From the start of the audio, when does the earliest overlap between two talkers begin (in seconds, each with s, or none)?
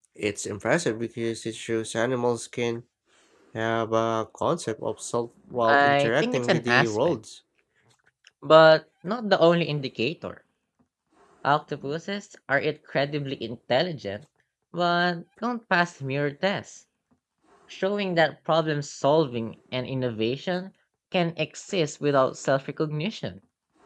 5.6 s